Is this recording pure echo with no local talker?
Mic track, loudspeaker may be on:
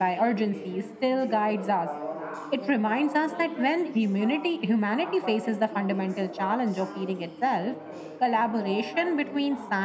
No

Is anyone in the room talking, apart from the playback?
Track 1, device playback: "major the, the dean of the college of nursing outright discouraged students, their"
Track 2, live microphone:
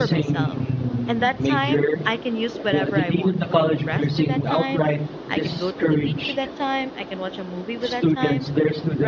Yes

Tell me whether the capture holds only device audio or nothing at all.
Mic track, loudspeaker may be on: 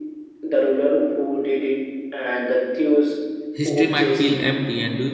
No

